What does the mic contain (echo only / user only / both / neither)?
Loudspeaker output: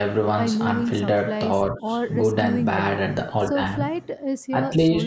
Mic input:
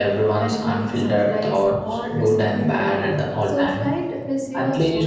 echo only